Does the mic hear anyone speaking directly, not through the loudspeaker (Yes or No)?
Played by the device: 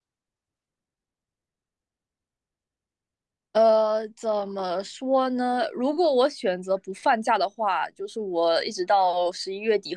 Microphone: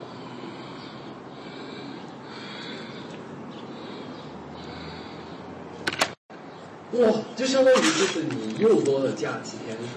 Yes